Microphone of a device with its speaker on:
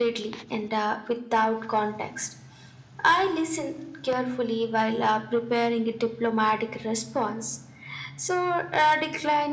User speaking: No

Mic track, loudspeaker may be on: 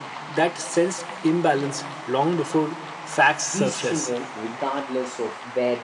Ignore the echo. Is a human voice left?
Yes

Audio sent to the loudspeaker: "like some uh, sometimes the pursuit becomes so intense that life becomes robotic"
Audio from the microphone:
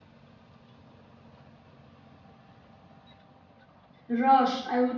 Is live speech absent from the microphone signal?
No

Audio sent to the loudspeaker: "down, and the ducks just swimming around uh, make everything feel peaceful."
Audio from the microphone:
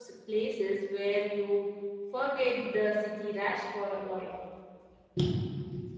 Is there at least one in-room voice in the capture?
Yes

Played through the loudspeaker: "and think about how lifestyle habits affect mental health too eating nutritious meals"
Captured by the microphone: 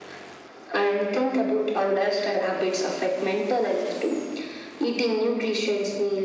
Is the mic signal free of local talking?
Yes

